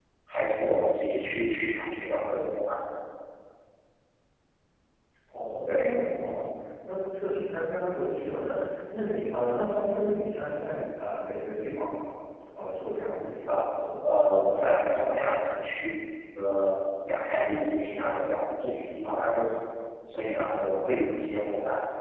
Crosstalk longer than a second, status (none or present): none